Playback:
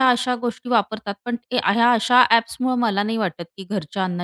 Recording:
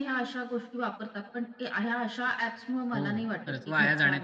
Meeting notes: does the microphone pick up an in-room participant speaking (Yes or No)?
Yes